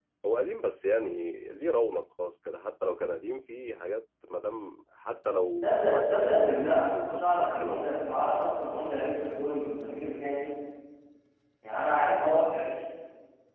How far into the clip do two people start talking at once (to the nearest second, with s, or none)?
6 s